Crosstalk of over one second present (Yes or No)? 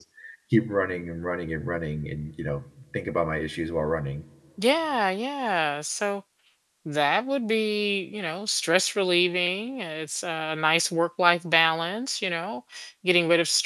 No